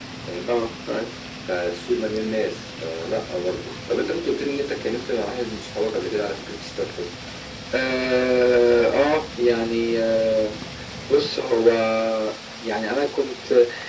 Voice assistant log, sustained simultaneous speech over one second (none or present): none